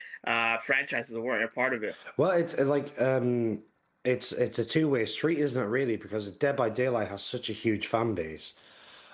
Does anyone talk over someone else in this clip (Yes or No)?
No